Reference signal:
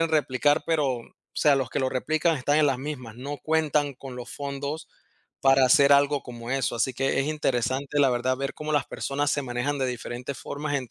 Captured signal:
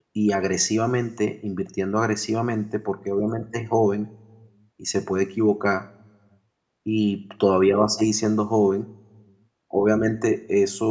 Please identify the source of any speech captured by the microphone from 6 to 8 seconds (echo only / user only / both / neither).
user only